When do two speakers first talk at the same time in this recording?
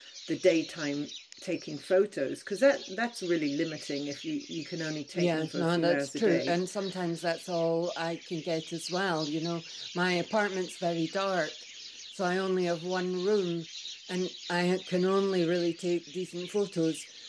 5.2 s

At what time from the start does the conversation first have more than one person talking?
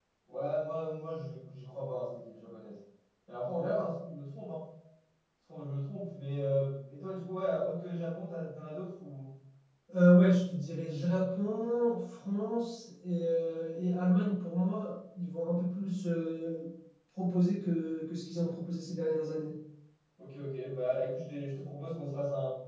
none

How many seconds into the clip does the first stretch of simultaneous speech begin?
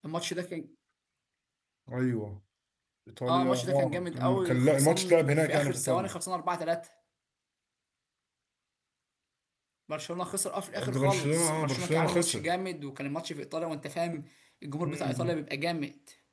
3.3 s

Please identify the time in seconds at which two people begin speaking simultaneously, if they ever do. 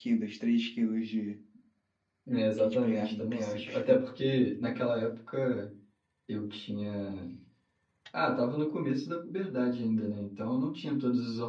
2.6 s

